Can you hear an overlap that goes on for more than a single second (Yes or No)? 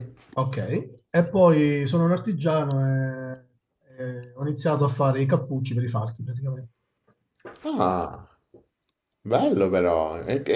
No